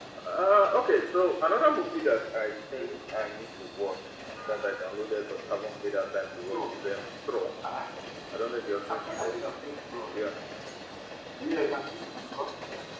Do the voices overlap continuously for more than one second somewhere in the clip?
No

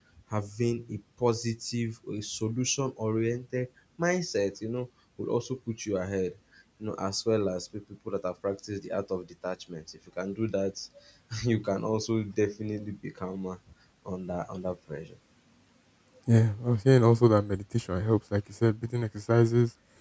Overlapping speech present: No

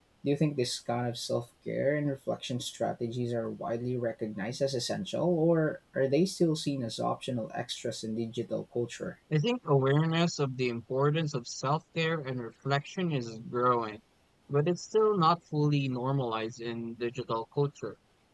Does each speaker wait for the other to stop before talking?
Yes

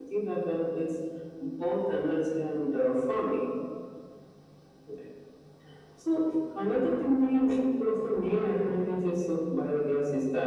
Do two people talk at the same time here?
No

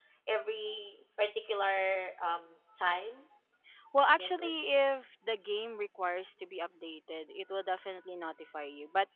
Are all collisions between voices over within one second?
Yes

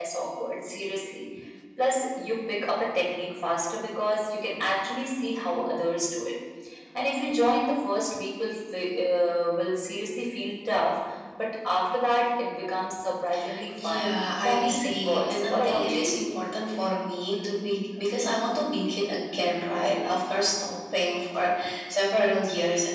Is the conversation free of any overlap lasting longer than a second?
No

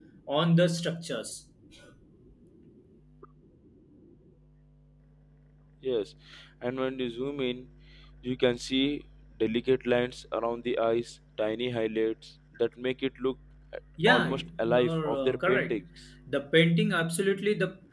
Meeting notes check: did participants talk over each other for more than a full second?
Yes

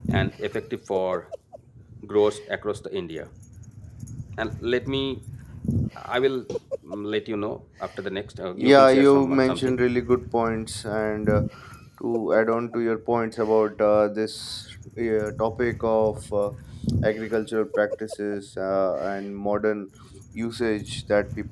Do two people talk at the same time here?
Yes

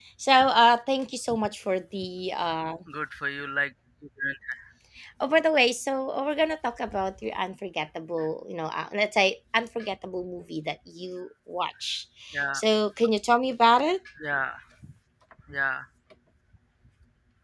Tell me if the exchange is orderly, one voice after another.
Yes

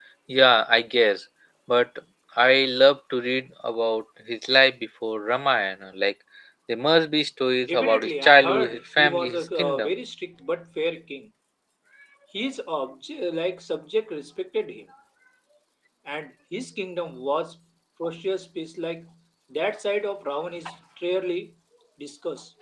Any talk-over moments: Yes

